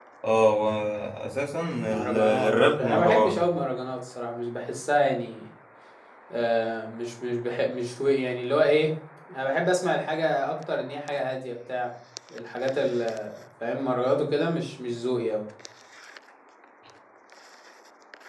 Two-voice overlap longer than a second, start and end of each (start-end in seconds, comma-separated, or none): 1.9-3.4